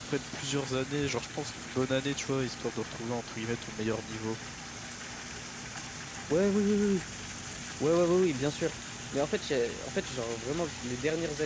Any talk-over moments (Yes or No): No